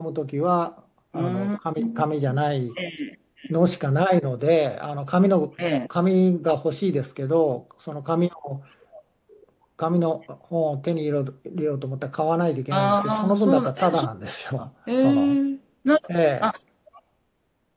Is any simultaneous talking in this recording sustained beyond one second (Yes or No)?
Yes